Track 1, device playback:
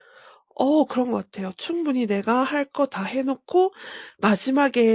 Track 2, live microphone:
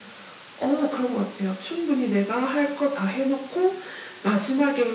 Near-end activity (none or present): none